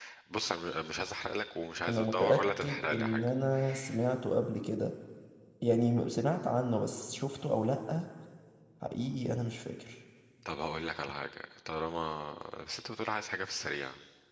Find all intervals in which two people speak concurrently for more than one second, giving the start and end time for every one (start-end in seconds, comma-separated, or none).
1.9-3.3